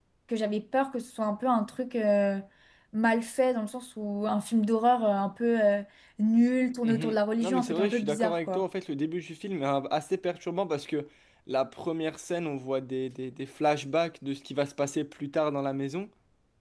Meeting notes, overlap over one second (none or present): present